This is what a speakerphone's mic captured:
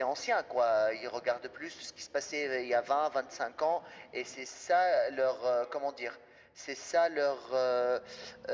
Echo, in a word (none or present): present